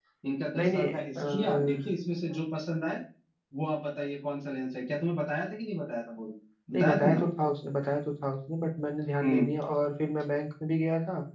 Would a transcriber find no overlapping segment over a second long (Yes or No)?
No